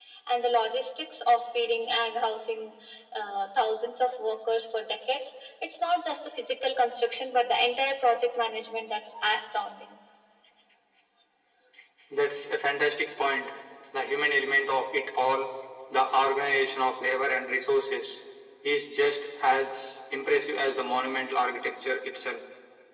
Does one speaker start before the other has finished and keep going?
No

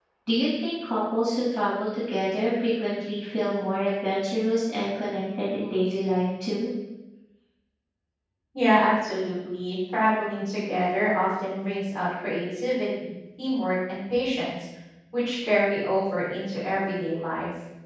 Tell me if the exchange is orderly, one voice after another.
Yes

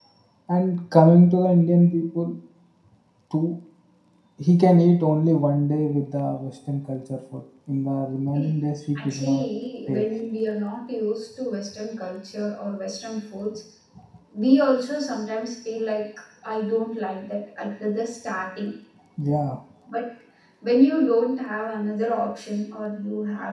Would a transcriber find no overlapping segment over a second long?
Yes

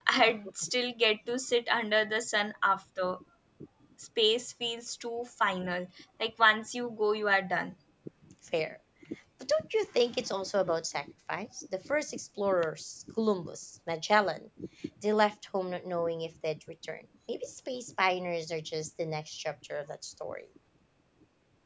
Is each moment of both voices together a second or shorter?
Yes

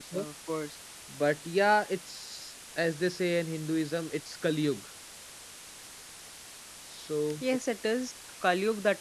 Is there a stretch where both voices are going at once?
No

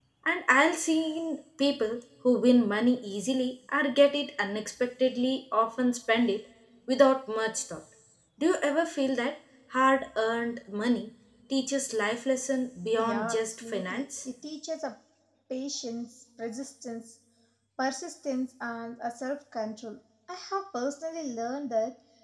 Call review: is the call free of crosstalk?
No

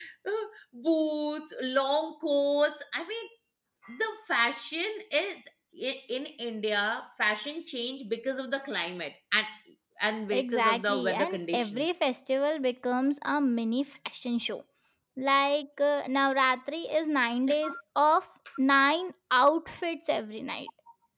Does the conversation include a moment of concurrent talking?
Yes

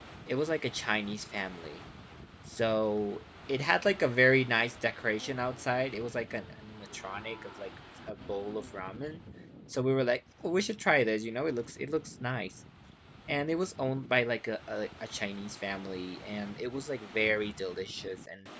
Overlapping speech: No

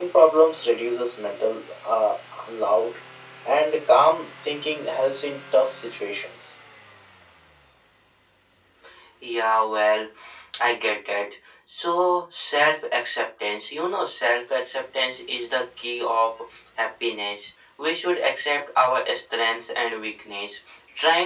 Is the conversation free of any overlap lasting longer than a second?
Yes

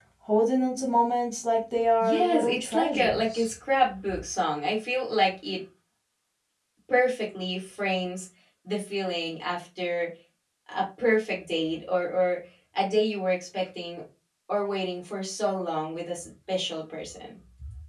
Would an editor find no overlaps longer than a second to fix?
No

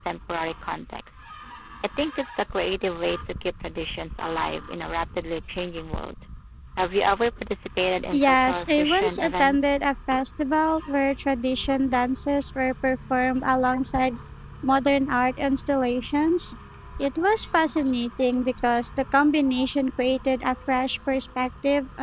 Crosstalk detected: Yes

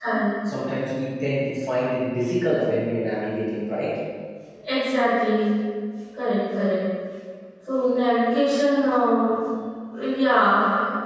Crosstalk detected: No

